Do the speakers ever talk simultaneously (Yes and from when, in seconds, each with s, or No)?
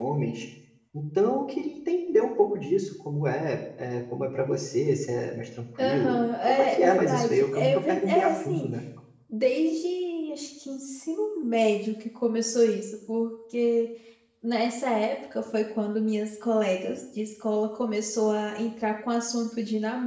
Yes, from 5.8 s